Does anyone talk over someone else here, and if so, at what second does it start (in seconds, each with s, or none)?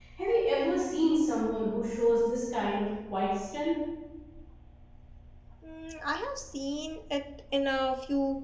none